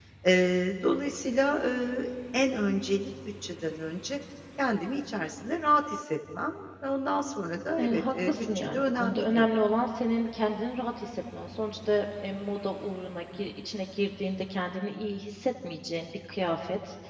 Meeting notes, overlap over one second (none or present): present